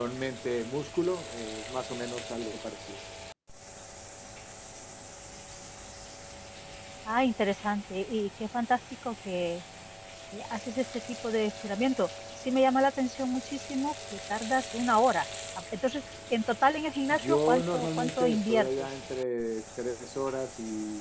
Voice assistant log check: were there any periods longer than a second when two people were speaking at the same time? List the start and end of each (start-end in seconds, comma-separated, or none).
17.1-18.9